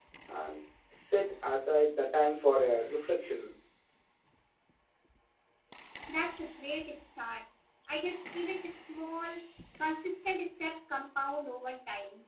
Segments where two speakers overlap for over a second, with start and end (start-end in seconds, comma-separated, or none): none